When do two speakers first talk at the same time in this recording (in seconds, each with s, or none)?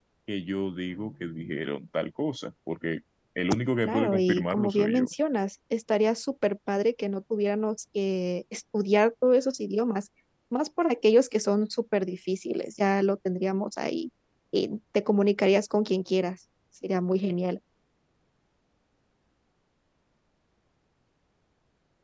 3.8 s